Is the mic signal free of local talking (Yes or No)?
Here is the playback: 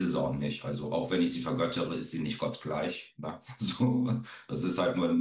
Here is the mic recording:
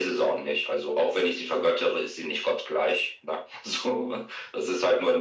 Yes